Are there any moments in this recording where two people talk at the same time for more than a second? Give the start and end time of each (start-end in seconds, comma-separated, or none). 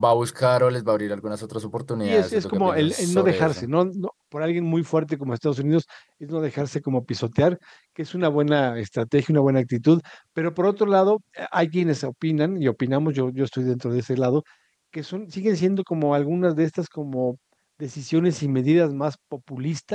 2.0-3.7